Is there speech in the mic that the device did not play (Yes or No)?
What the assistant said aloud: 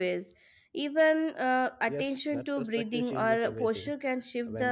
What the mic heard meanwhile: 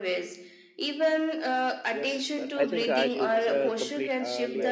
Yes